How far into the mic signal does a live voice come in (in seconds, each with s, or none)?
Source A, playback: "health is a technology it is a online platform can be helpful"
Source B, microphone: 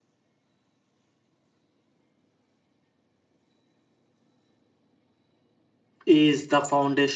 6.1 s